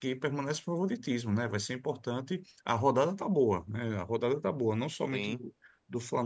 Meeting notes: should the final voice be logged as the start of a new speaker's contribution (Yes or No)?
No